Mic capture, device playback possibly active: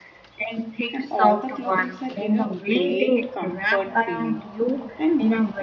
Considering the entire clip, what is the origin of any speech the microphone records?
both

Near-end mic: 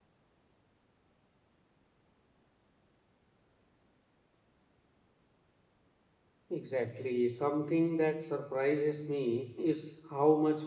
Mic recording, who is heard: user only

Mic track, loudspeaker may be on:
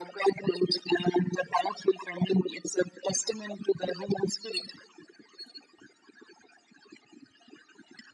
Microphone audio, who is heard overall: echo only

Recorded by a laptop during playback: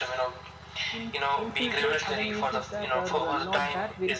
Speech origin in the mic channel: both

